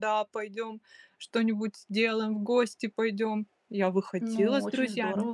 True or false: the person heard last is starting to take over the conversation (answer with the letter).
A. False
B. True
B